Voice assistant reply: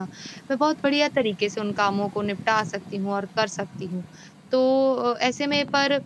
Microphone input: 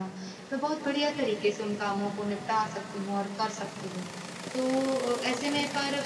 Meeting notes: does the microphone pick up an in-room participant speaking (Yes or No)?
No